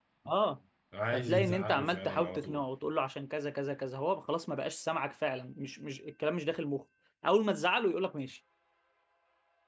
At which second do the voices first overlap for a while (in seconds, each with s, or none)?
1.1 s